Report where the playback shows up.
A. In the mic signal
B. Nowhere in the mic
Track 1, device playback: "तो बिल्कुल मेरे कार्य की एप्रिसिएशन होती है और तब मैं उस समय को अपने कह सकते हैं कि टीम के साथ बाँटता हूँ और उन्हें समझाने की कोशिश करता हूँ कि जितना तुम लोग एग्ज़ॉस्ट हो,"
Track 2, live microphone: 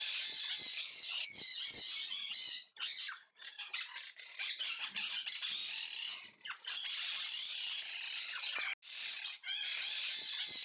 B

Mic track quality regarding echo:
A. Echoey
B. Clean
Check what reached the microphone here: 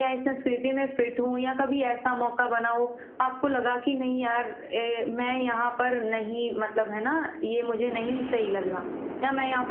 A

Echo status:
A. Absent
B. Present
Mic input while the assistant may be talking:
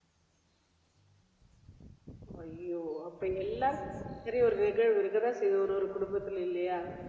A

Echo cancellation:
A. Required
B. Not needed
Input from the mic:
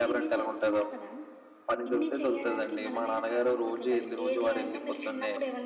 A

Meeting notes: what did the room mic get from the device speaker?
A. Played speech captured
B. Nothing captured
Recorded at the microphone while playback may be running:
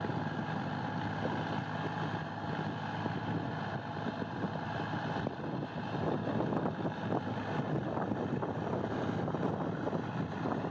B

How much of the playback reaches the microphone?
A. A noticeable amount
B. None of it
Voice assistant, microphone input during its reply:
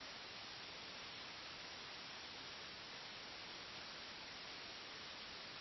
B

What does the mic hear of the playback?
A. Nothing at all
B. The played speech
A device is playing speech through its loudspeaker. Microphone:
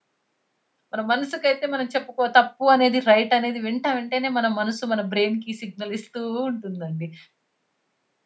A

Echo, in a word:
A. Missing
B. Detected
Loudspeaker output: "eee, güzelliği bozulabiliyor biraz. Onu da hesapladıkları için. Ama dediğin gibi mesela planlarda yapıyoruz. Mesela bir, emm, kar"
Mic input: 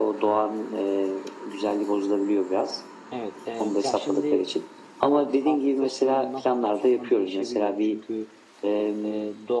B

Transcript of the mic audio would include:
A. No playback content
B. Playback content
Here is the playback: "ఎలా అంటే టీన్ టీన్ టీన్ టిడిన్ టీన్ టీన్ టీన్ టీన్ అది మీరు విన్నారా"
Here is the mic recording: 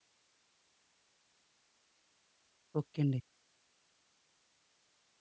A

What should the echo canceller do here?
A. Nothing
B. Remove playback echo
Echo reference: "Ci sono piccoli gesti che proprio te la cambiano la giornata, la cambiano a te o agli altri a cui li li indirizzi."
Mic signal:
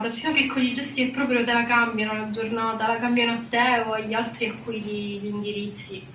B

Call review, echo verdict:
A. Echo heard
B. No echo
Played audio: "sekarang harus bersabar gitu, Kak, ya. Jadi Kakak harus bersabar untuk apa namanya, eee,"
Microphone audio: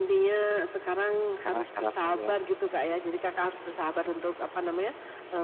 A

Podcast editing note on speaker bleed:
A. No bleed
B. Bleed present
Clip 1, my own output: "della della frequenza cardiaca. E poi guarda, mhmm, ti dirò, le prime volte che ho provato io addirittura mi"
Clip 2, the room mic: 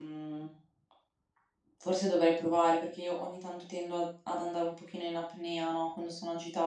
A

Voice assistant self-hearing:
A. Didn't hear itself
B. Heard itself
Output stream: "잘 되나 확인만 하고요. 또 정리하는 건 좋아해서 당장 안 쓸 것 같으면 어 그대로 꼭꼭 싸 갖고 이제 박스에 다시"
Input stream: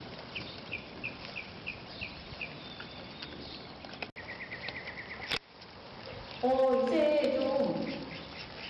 A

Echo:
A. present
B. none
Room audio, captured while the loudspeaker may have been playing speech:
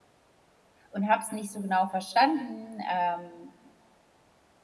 B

